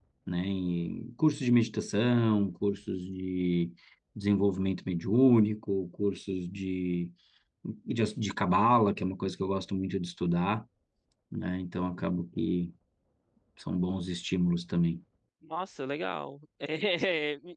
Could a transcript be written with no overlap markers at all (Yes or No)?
Yes